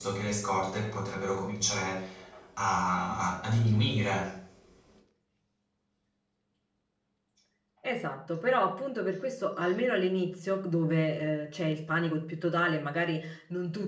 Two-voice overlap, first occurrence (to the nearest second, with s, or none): none